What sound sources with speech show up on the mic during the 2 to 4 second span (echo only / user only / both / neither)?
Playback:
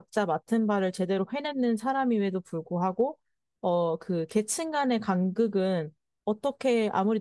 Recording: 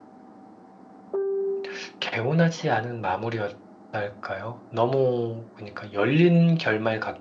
user only